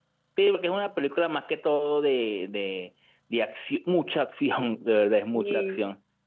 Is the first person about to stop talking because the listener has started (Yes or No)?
No